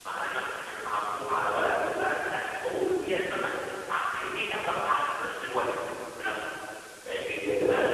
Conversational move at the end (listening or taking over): taking over